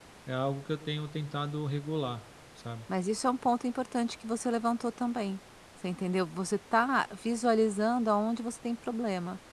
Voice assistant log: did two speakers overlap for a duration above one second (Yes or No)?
No